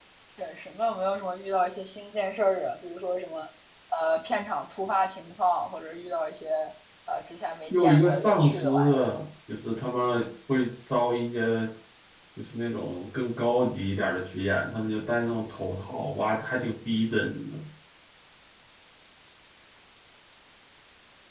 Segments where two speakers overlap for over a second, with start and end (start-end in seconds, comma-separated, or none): 7.7-9.1